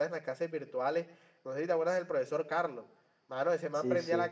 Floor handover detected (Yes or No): No